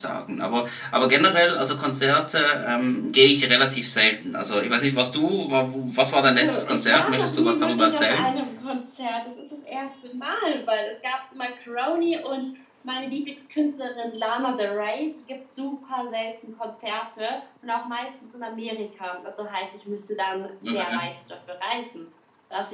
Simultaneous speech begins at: 6.2 s

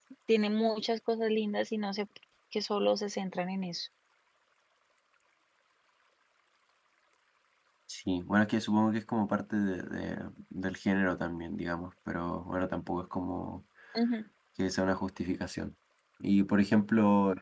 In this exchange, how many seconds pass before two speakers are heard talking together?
none

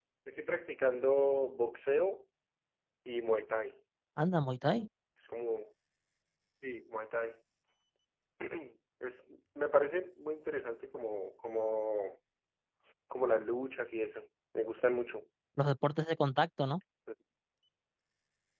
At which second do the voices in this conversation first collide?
none

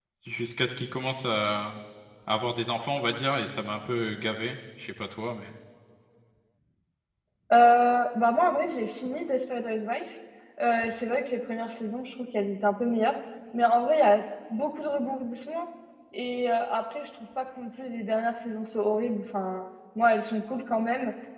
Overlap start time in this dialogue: none

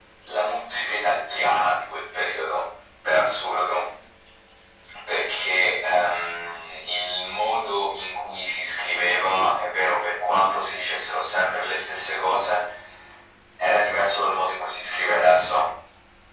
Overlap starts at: none

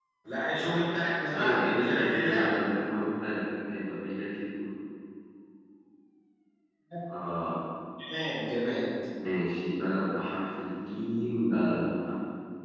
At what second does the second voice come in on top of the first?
1.3 s

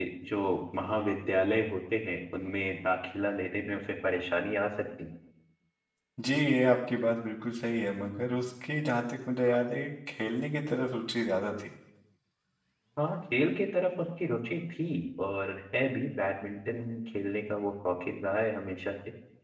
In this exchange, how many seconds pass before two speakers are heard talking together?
none

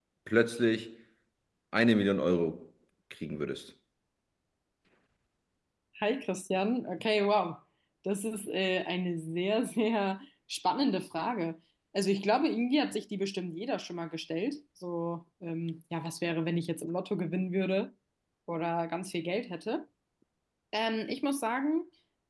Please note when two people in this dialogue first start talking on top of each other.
none

